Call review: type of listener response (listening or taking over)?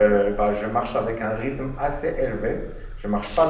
listening